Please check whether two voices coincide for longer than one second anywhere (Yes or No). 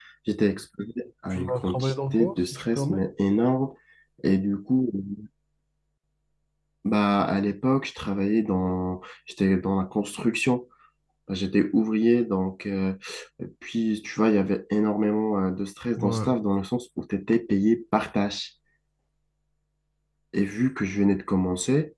Yes